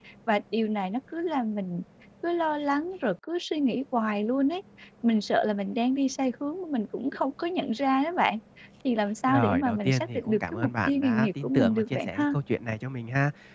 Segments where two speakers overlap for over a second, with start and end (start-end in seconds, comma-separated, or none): 9.3-12.2